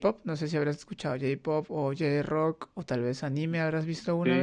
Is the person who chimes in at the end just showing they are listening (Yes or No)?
No